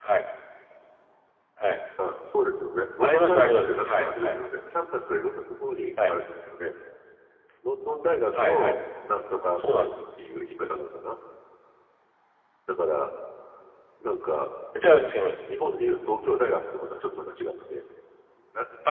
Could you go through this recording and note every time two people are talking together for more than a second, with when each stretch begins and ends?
3.0-4.4

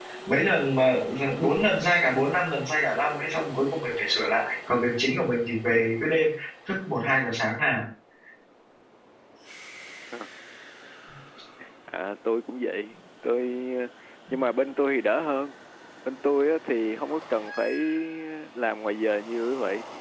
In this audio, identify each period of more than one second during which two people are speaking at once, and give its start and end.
none

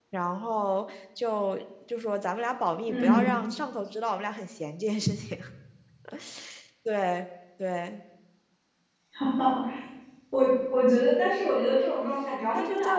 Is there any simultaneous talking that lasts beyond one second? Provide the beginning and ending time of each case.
none

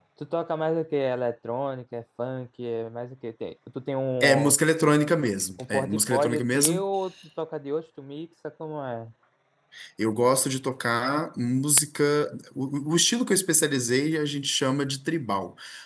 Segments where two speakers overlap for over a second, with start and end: 5.6-6.8

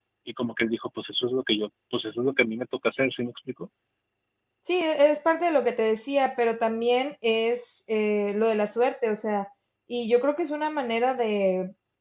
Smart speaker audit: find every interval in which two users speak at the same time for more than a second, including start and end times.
none

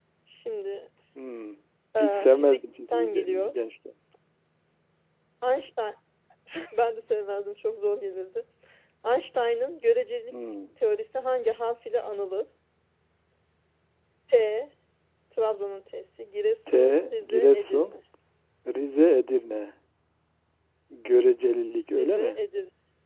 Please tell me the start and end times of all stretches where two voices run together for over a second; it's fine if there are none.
2.0-3.5, 16.7-18.0

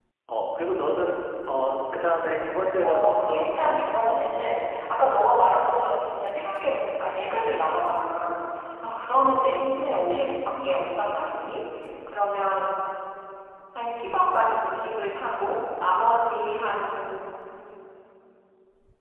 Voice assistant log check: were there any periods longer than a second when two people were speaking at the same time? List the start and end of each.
2.8-4.2

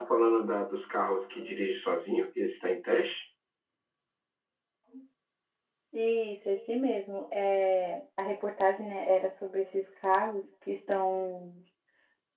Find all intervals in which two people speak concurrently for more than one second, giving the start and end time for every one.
none

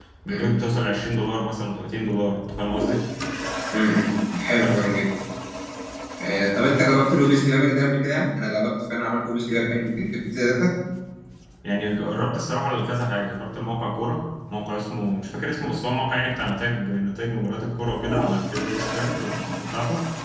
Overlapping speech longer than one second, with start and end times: none

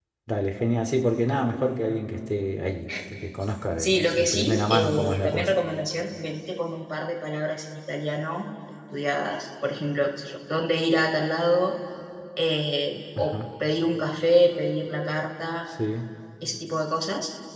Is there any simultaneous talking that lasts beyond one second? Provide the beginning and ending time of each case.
3.8-5.5

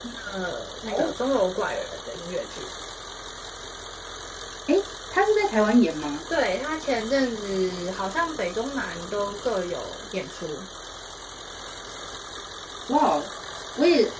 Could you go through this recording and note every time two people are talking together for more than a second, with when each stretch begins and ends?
none

